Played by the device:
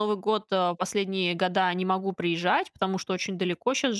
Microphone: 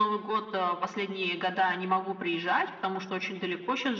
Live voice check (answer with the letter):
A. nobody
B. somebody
A